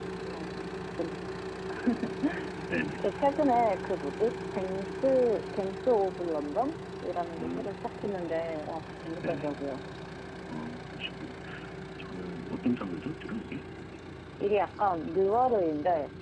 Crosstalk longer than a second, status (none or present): none